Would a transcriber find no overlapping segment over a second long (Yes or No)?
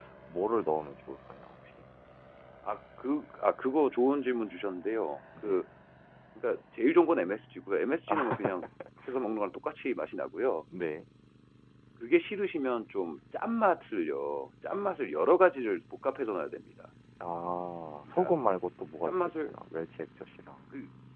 Yes